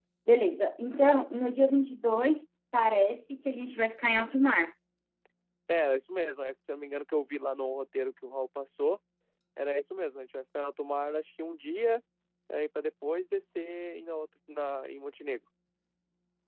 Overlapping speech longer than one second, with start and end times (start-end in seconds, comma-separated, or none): none